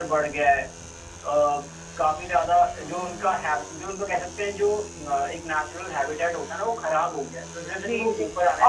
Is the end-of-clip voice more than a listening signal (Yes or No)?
Yes